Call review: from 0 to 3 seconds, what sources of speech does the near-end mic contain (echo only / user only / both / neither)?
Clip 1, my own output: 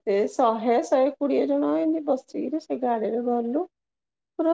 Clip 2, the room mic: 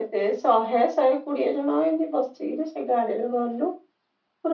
echo only